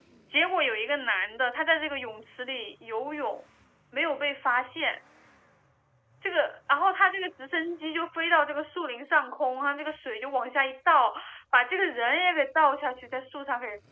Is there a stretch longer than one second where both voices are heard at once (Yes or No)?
No